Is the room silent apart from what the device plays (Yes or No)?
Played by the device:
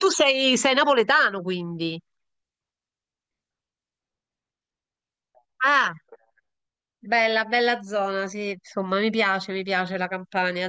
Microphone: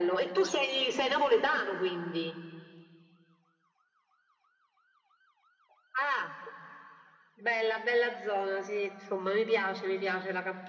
Yes